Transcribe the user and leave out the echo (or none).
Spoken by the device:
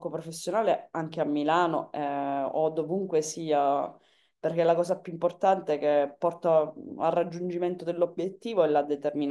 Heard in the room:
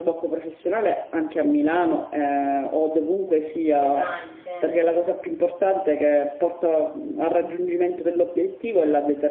Design, sì,